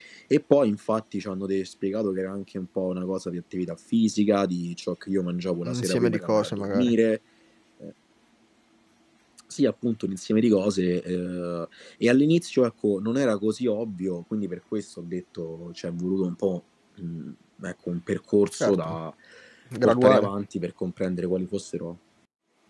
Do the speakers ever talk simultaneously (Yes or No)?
Yes